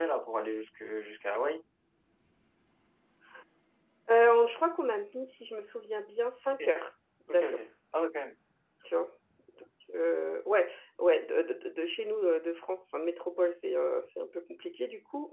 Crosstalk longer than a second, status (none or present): none